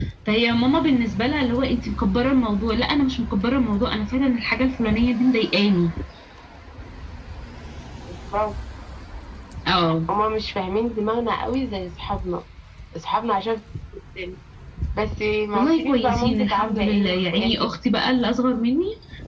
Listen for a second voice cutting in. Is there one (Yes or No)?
Yes